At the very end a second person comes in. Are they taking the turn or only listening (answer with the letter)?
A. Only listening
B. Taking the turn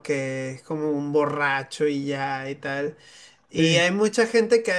A